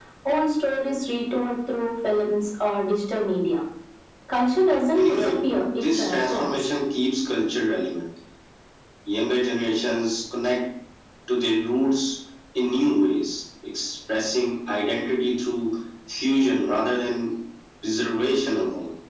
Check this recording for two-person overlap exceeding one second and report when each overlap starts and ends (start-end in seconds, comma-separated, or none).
4.9-6.6